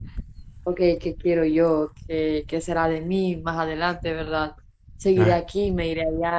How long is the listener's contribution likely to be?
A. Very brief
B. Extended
A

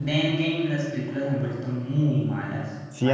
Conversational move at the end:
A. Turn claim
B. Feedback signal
A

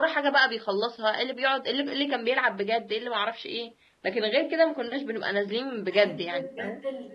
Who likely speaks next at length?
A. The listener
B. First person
A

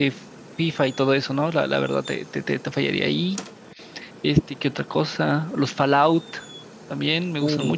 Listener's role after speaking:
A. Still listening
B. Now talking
B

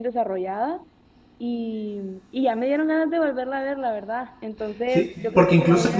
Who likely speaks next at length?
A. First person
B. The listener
B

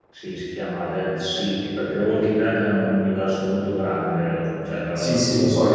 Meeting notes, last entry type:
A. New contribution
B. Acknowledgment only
A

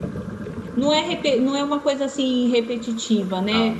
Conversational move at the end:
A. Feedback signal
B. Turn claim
A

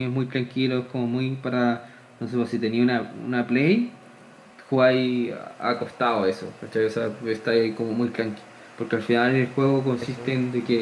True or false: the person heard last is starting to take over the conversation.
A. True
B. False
B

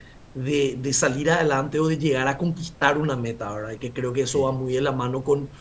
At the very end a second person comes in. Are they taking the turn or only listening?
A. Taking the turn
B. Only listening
B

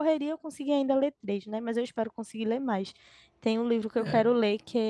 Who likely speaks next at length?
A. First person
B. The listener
A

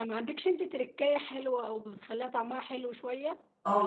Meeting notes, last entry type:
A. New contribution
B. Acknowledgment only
A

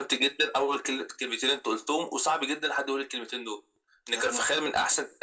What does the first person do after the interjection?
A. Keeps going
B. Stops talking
A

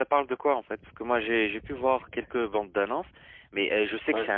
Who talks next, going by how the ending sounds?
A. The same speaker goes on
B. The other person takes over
A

